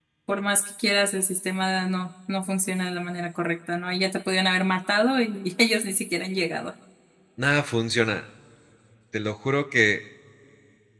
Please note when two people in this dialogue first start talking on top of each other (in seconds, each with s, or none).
none